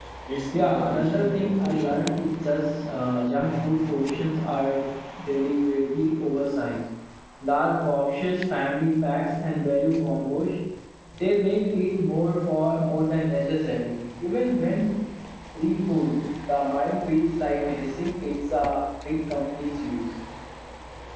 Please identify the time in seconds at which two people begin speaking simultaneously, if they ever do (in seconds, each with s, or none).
0.5 s